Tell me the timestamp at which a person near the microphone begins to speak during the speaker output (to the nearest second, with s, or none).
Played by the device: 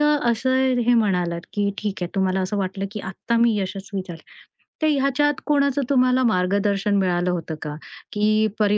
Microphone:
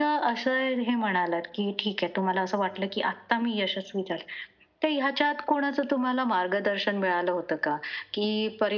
none